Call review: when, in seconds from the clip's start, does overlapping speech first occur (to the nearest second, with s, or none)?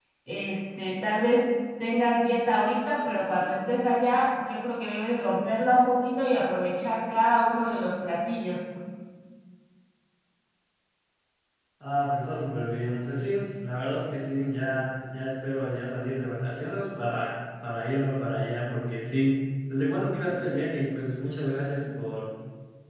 none